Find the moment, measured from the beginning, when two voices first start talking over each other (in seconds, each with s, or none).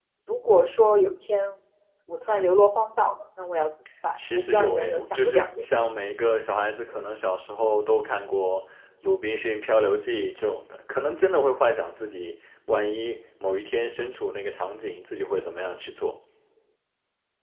4.2 s